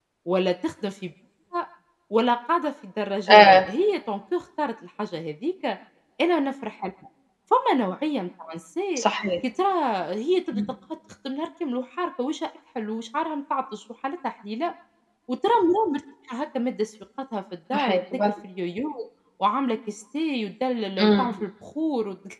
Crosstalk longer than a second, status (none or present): none